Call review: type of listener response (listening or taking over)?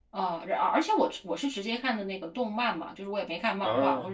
listening